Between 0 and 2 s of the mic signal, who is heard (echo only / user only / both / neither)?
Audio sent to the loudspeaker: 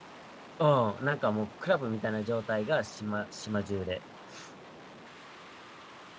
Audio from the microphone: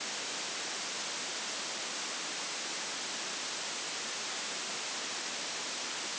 neither